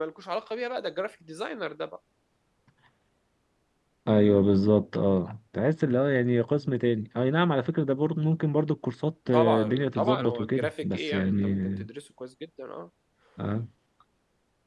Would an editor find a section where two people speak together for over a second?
Yes, from 9.3 s

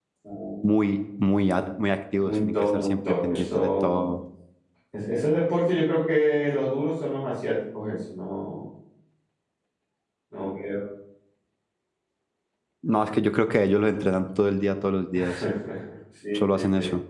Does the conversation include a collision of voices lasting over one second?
Yes, from 2.1 s

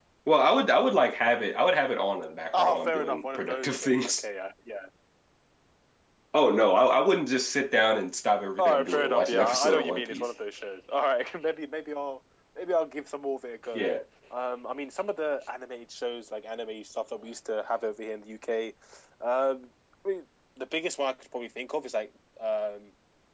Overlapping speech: Yes, from 2.5 s

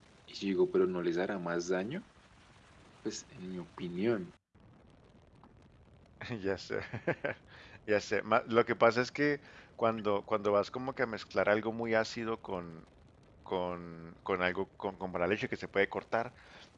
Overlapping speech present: No

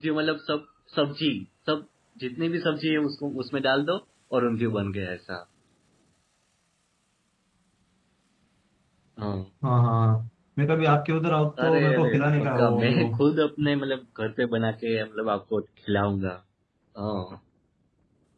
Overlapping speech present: Yes, from 11.6 s

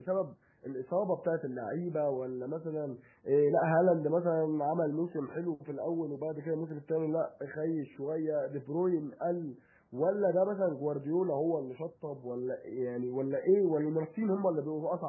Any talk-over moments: No

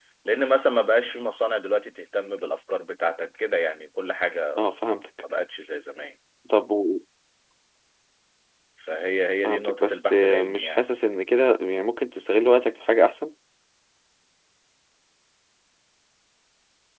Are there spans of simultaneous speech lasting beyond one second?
Yes, from 9.4 s

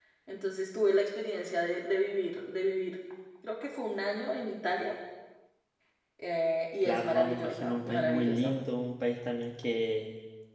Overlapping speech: Yes, from 6.8 s

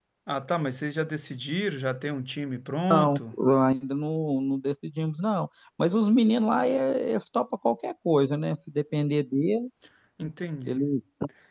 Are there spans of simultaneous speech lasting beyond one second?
No

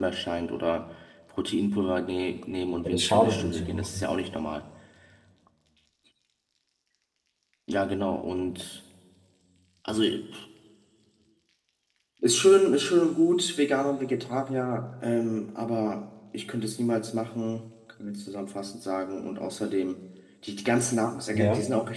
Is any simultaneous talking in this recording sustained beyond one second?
Yes, from 2.8 s

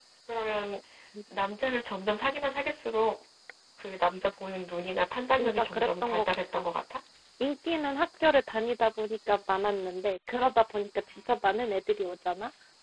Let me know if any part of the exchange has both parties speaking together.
Yes, from 5.3 s

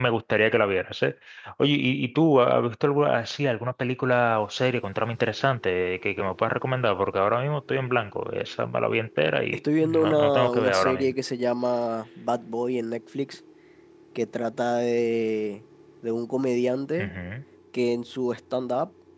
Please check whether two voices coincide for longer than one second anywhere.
Yes, from 9.5 s

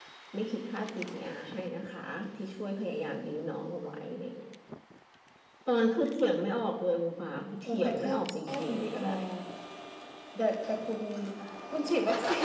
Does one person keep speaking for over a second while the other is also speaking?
Yes, from 7.6 s

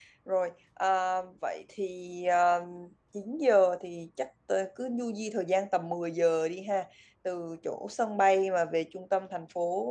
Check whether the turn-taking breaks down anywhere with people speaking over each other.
No

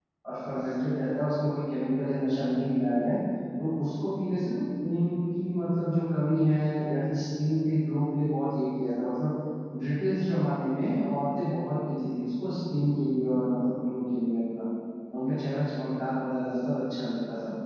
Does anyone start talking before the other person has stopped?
No

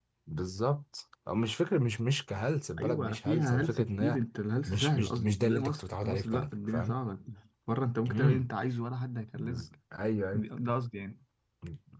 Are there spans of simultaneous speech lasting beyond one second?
Yes, from 2.8 s

